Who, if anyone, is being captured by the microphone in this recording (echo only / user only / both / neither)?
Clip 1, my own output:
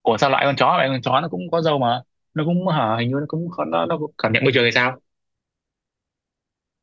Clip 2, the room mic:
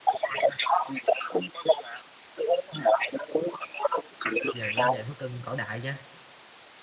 both